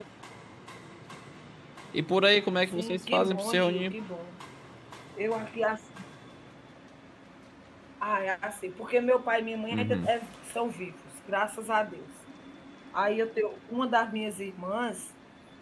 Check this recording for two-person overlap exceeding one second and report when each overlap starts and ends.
2.7-3.9

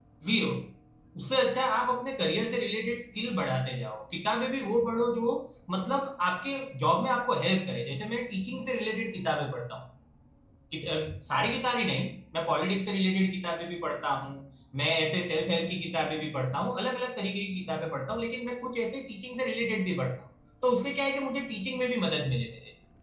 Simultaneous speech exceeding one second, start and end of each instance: none

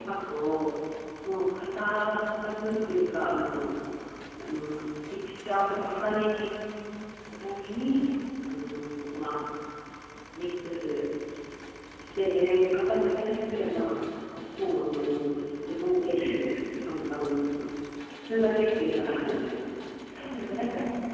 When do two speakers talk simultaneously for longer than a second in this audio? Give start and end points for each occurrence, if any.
none

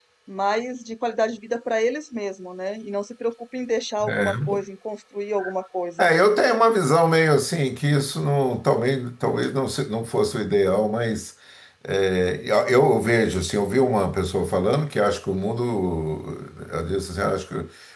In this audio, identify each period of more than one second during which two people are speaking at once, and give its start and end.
none

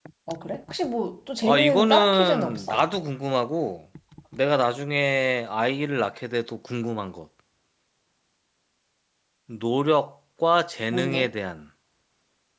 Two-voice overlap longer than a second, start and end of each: 1.4-2.8

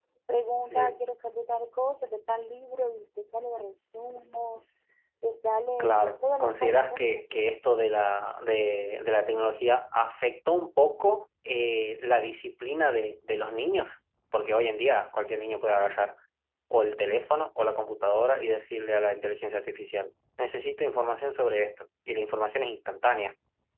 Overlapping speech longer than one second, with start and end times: 5.8-7.6

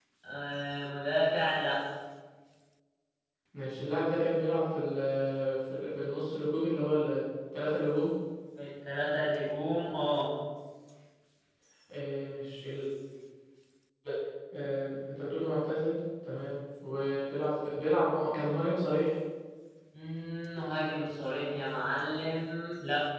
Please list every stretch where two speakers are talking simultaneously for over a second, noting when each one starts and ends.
none

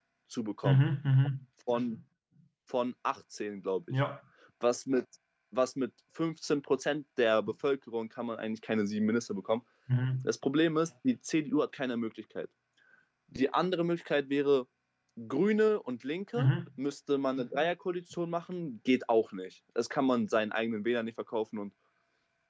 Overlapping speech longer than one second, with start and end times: none

